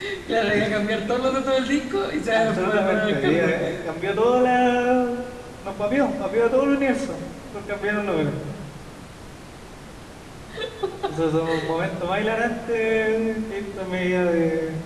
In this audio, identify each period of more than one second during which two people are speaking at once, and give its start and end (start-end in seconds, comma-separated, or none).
2.3-3.5